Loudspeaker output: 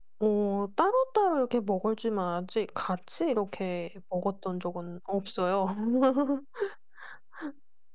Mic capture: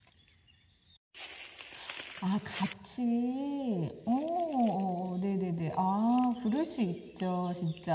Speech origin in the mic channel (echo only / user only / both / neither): user only